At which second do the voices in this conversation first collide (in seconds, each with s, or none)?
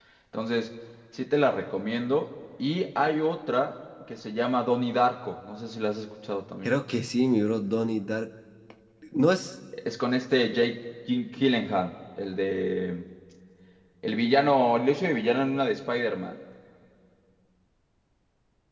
none